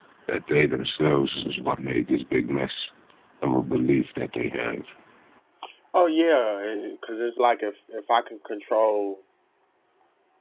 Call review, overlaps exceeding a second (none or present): none